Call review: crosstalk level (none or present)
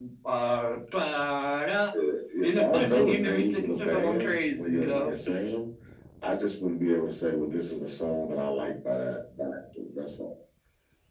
present